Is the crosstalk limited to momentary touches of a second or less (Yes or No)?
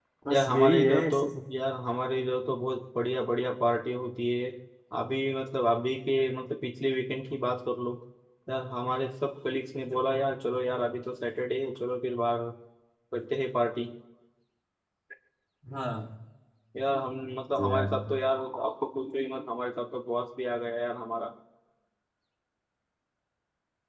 No